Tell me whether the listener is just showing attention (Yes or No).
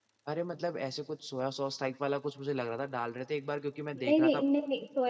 No